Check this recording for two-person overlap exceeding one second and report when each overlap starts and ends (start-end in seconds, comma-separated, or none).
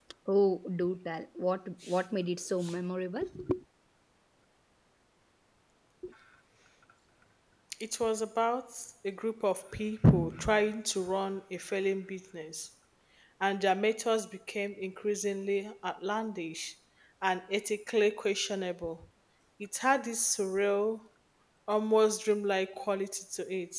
none